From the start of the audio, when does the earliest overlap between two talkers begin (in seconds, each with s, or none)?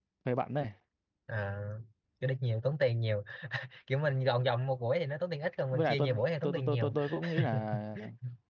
5.7 s